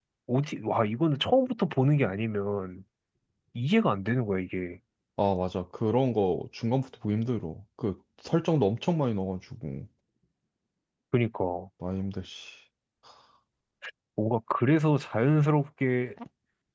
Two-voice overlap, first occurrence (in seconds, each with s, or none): none